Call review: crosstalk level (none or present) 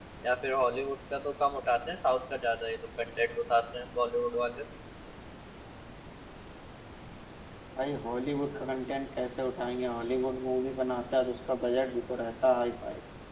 none